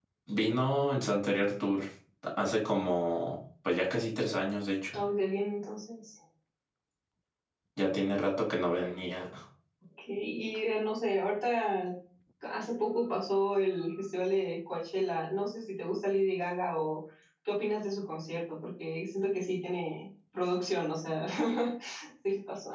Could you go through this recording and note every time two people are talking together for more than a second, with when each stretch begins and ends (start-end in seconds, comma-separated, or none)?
none